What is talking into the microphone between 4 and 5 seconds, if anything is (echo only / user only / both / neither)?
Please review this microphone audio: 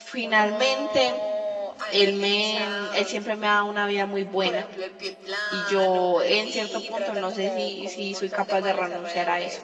both